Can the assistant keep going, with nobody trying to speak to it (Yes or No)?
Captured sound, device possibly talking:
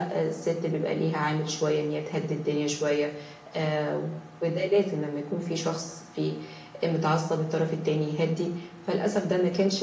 Yes